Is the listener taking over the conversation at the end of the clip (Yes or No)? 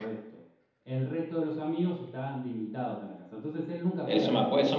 Yes